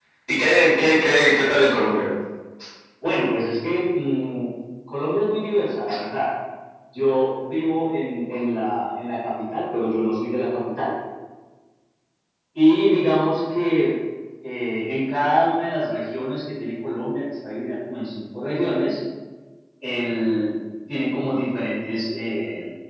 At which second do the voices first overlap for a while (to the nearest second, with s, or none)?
none